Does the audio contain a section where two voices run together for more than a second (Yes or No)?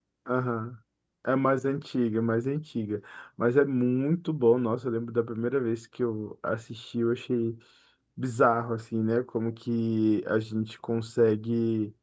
No